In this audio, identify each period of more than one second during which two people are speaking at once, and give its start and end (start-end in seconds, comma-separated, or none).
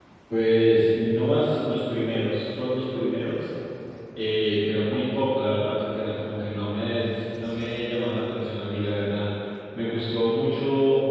none